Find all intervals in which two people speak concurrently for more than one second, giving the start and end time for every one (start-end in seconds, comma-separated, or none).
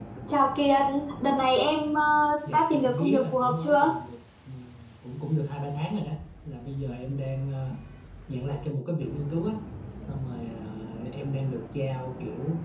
2.5-4.0